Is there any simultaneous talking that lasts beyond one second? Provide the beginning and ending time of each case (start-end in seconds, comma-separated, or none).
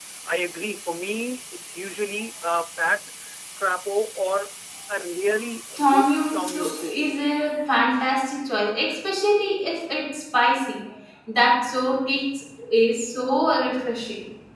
5.8-7.0